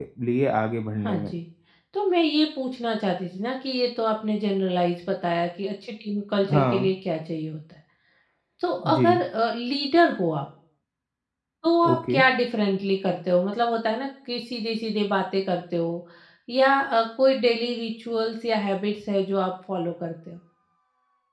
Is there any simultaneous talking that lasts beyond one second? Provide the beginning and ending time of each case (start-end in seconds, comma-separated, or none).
none